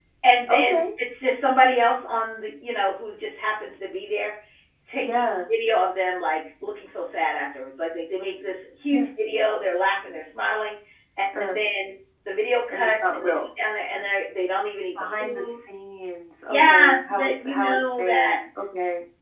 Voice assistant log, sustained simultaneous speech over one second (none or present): present